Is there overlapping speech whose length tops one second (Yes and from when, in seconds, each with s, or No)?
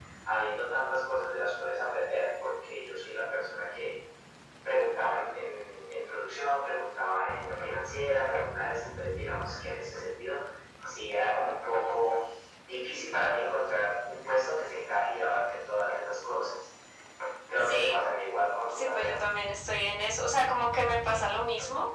No